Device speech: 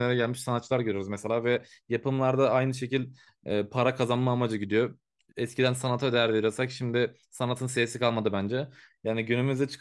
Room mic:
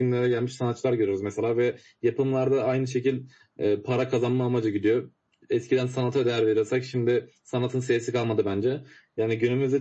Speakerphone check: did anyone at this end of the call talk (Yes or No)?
No